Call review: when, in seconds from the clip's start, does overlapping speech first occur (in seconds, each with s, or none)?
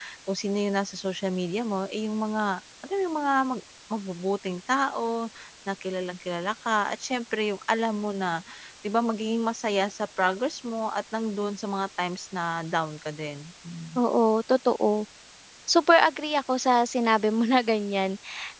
none